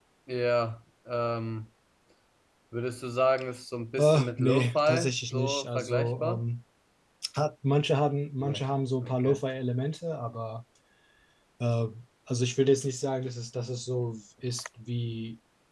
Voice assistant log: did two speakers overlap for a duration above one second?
Yes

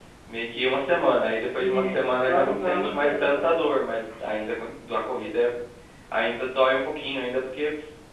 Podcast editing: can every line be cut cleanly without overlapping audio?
No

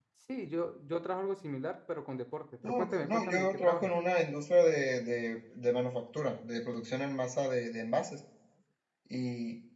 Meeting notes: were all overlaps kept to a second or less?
No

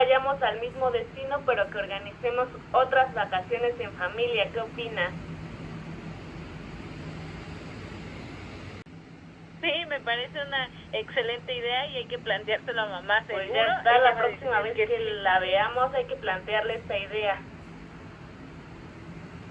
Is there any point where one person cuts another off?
Yes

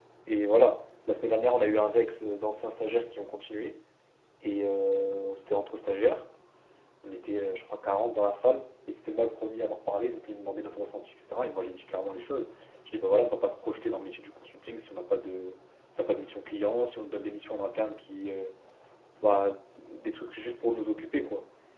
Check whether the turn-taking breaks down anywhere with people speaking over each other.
No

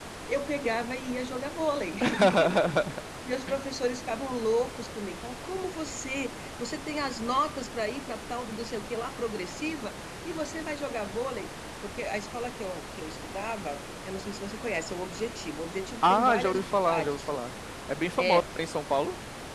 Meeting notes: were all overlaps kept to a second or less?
No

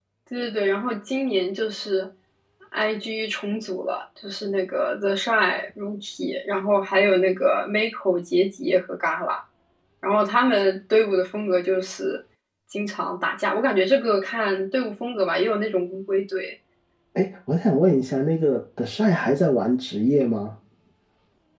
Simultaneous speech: No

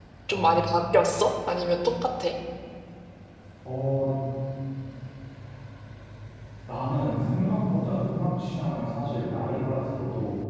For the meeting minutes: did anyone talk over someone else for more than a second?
No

